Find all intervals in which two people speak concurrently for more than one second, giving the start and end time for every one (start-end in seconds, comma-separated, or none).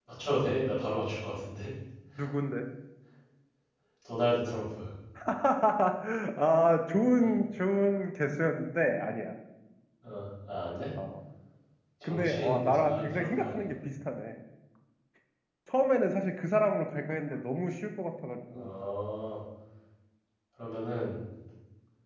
12.0-13.8